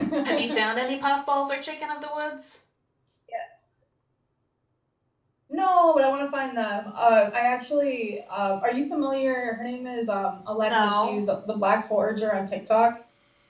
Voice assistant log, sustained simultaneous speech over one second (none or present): none